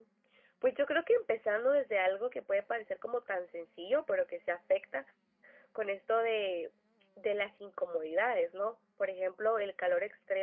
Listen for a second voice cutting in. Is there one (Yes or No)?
No